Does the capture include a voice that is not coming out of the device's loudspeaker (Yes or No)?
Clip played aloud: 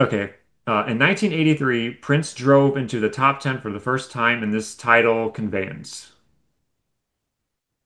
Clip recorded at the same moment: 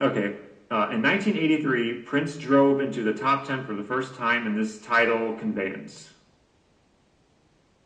No